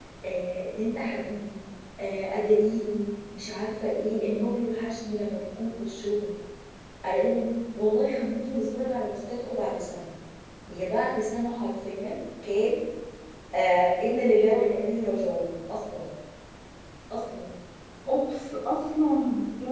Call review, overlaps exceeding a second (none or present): none